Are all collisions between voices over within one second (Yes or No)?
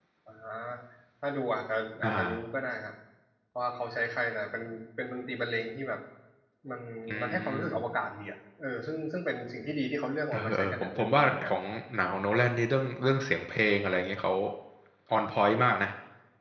No